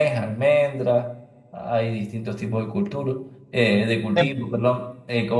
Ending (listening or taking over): listening